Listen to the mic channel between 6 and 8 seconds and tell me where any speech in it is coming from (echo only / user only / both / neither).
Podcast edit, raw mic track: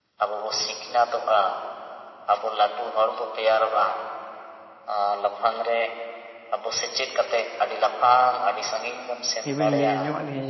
echo only